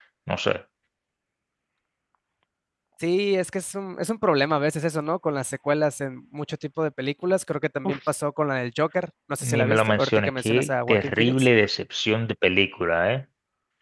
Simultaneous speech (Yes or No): Yes